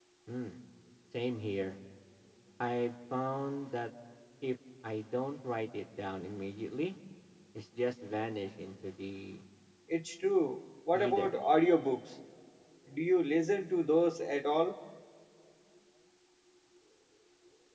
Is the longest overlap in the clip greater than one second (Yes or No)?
No